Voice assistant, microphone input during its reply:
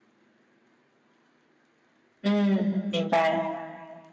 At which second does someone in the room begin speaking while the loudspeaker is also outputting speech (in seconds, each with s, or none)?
2.2 s